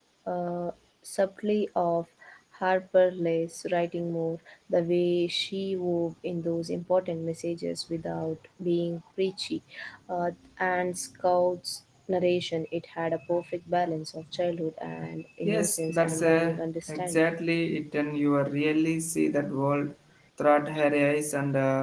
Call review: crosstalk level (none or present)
present